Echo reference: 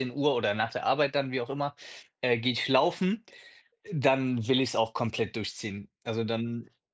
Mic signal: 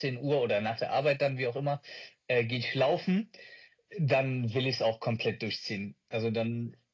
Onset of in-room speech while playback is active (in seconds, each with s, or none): none